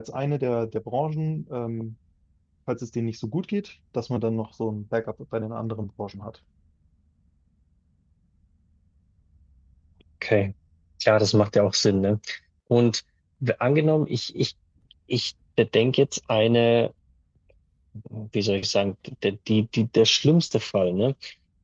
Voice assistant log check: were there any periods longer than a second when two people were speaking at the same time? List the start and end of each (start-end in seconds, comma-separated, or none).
none